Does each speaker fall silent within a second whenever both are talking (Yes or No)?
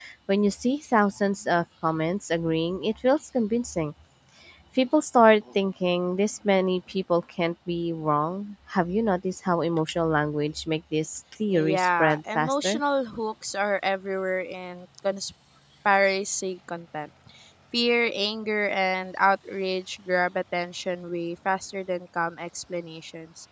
No